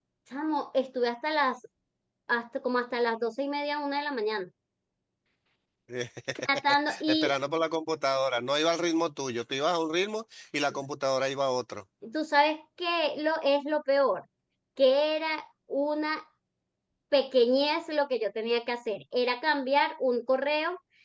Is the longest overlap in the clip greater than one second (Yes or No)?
No